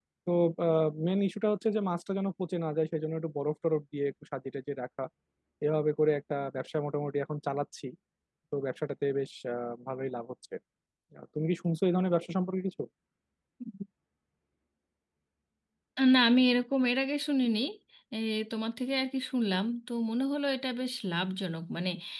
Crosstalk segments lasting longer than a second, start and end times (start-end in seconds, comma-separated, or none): none